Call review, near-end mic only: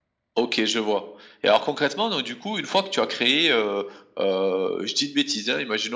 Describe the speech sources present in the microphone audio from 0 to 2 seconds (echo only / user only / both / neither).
echo only